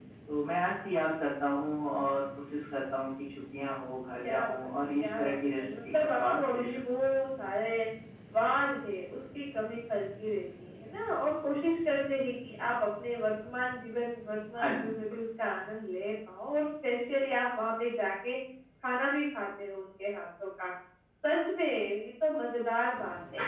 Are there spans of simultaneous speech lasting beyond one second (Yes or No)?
Yes